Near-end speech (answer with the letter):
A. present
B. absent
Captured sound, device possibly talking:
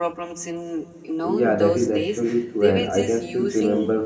A